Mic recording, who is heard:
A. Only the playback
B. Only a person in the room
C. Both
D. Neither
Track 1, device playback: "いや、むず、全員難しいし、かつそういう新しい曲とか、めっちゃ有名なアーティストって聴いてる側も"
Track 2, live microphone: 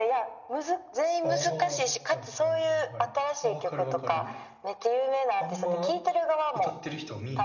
C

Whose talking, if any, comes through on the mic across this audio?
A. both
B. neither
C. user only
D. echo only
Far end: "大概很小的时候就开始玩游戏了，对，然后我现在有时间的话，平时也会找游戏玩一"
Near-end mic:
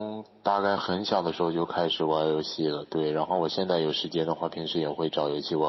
D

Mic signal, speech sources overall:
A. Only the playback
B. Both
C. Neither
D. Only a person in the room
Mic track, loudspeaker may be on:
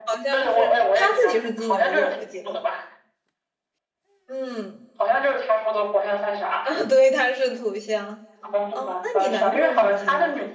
B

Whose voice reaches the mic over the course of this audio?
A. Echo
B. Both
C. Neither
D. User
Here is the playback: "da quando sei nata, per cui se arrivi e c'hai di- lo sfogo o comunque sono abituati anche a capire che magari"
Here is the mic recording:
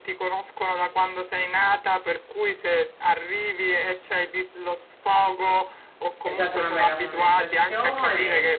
B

